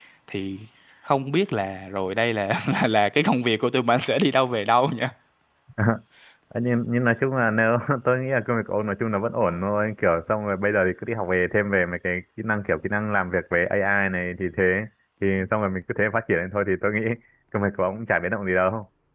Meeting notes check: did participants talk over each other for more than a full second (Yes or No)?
No